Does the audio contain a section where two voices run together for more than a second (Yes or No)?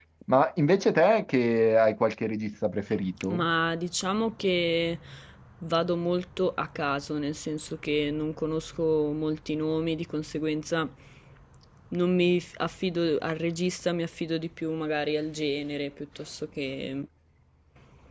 No